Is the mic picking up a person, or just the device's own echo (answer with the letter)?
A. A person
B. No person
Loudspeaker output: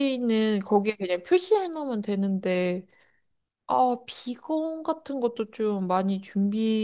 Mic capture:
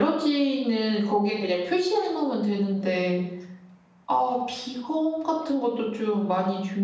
B